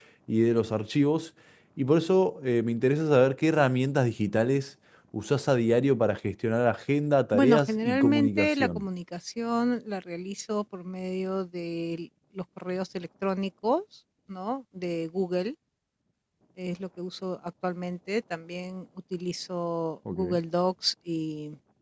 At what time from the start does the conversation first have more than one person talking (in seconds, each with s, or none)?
7.3 s